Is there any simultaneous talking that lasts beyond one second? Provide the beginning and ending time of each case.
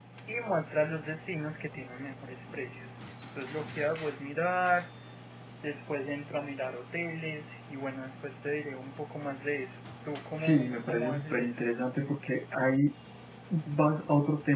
10.4-11.6

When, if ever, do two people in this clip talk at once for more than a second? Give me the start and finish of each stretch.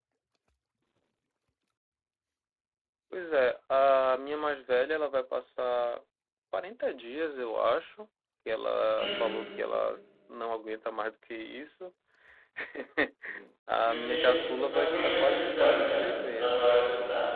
13.8-16.7

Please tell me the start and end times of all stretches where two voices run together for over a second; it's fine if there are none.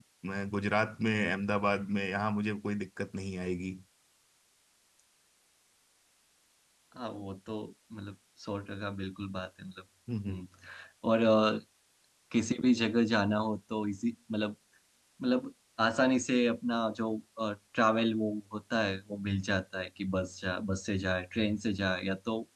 none

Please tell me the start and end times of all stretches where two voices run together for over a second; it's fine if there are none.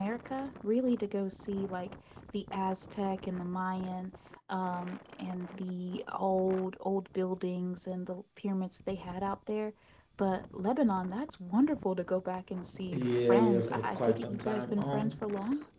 12.9-15.3

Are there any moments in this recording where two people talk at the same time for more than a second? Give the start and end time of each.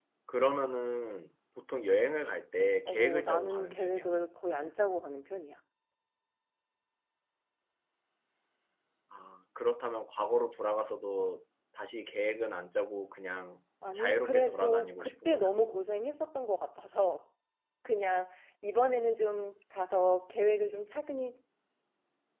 2.9-4.1, 13.9-15.5

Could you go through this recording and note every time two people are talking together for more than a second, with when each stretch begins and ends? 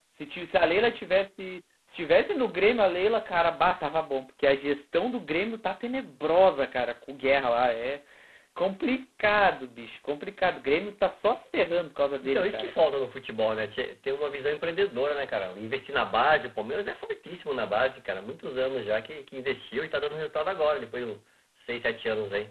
none

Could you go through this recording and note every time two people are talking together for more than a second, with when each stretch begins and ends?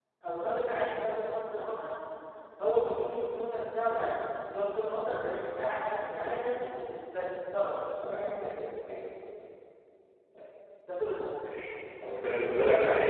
none

